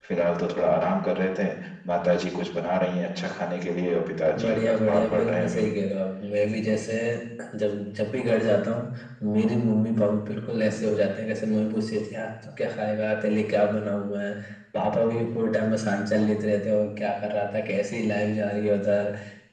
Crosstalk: present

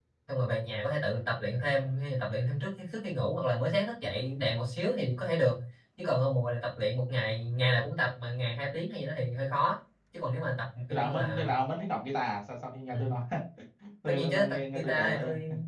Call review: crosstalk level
present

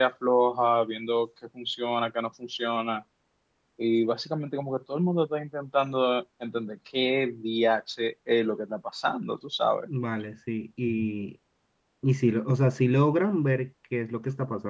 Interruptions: none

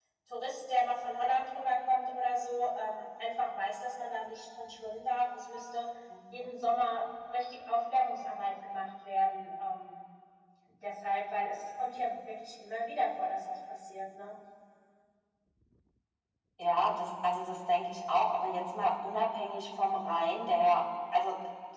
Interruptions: none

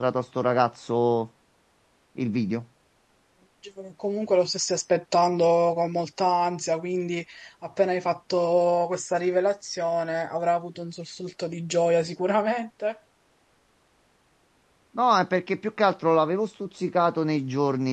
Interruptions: none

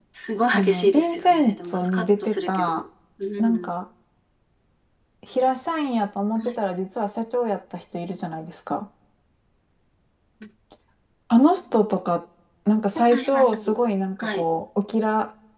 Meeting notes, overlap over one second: present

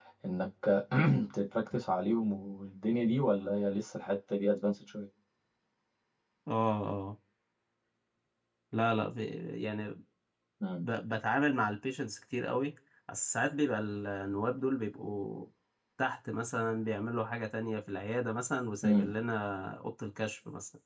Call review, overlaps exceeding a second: none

